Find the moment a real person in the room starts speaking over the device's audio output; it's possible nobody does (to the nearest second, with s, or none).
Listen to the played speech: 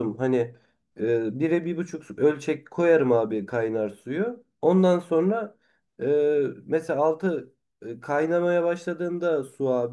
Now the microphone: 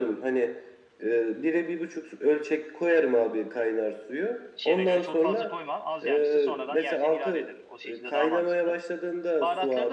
5 s